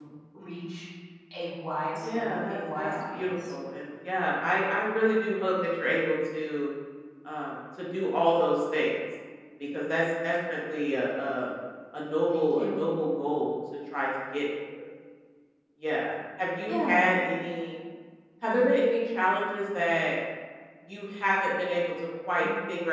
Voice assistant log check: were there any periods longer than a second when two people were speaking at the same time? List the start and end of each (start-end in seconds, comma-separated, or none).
1.9-3.5